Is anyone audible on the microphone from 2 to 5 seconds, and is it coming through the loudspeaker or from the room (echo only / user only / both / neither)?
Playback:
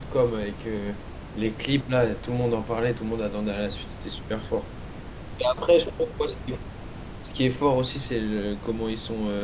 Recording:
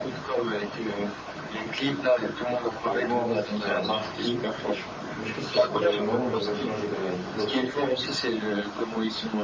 both